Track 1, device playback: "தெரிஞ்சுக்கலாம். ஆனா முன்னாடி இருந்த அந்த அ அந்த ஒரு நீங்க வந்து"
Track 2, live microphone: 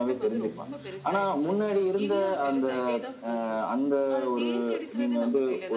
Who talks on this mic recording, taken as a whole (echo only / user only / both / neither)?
both